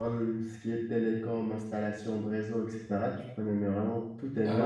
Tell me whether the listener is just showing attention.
No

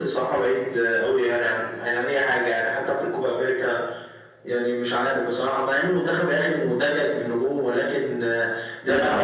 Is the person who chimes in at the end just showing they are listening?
Yes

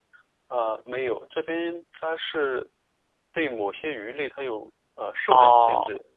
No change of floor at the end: No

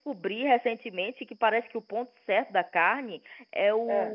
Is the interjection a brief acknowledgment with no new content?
Yes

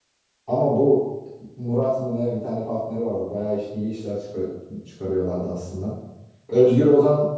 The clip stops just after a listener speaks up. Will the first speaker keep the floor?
Yes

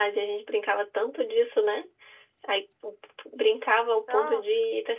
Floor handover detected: No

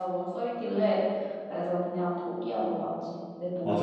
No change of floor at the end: No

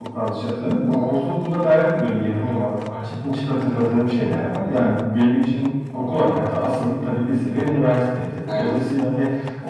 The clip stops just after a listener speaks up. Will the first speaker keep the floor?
Yes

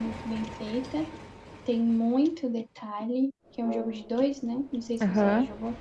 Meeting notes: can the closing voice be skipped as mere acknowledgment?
No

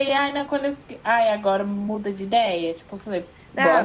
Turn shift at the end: Yes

